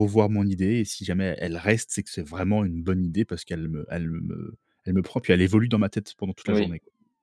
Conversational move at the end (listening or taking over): taking over